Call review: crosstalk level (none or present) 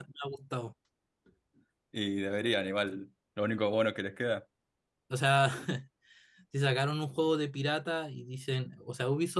none